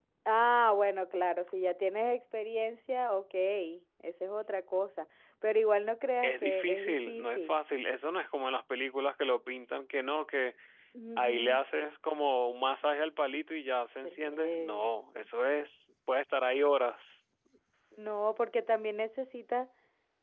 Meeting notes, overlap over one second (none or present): present